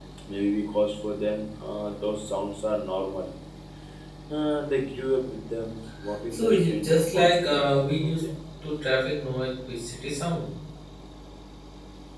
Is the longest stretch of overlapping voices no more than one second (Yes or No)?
No